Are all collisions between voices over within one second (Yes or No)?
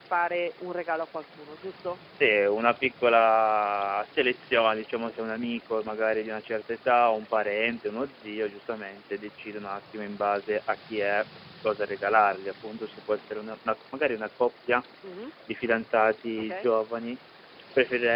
Yes